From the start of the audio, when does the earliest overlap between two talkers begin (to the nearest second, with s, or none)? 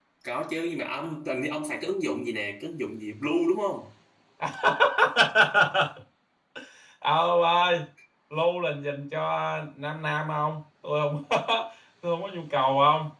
none